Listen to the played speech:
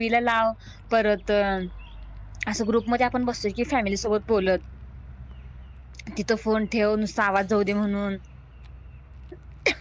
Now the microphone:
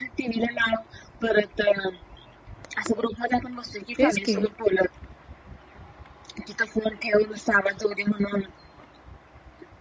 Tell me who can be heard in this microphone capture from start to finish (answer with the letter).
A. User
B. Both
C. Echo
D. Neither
B